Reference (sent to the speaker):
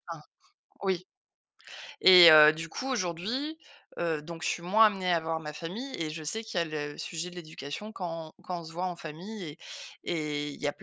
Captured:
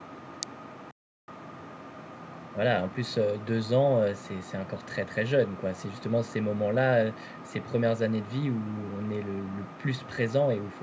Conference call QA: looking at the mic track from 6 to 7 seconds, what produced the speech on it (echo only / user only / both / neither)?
user only